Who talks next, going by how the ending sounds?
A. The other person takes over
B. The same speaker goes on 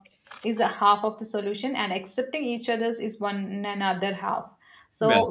B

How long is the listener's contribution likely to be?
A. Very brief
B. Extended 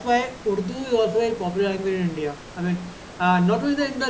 A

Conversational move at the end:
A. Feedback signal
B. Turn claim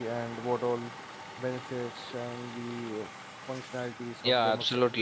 B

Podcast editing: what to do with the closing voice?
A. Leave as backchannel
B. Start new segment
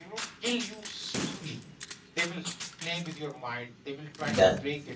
A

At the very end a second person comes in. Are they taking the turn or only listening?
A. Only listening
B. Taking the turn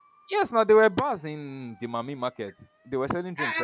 B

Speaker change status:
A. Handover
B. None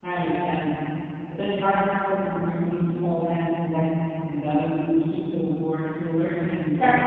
A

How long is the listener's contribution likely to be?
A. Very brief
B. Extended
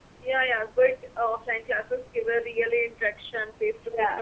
A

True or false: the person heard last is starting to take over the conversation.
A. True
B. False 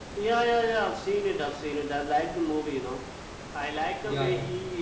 B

